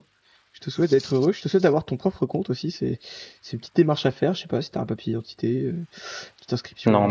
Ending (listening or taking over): listening